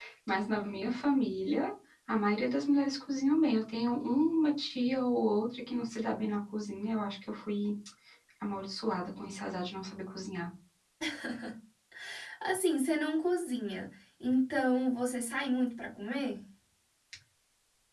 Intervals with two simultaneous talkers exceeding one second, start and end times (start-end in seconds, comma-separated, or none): none